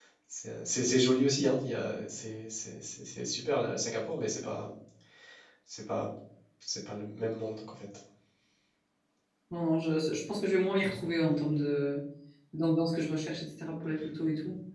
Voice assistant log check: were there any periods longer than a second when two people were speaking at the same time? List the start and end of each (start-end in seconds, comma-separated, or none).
none